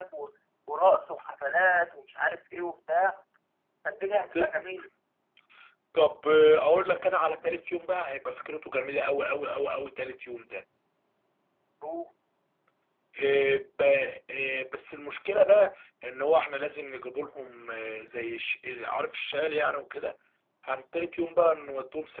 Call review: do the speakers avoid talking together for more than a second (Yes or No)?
Yes